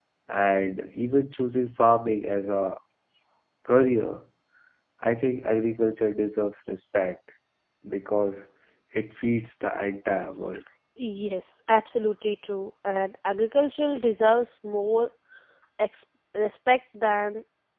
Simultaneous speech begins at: none

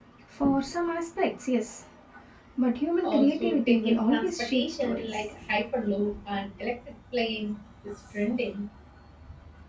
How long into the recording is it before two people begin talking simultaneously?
3 s

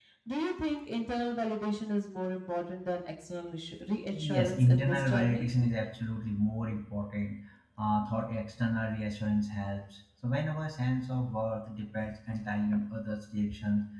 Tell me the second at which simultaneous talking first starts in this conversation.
4 s

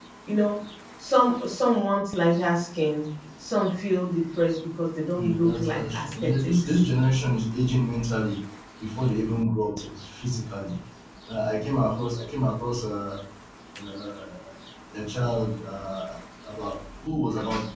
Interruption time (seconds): 5 s

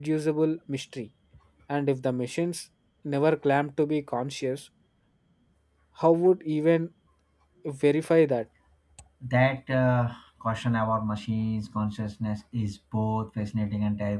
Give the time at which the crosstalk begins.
none

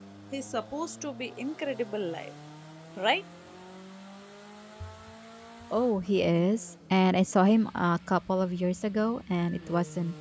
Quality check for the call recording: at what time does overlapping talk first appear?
none

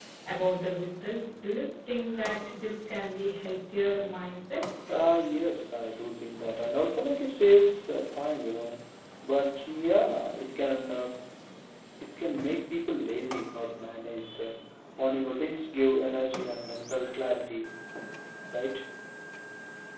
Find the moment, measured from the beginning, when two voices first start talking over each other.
none

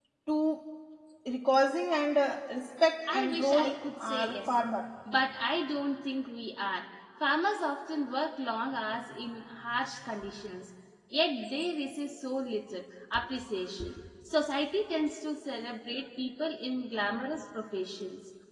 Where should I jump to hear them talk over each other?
3 s

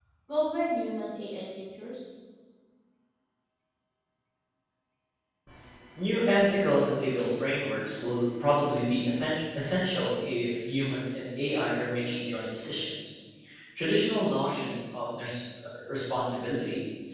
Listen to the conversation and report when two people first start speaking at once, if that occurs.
none

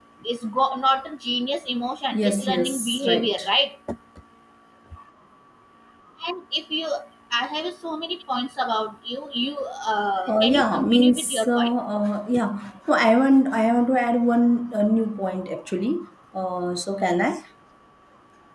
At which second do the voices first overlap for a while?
2 s

